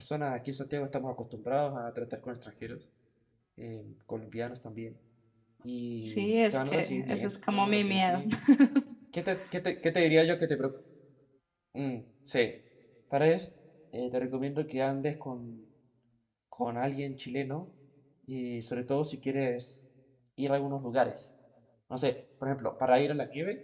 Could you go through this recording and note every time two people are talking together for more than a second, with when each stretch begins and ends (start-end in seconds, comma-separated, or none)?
6.0-8.2